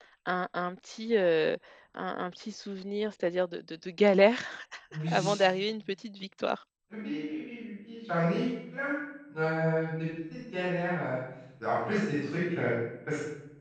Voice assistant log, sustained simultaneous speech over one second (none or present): none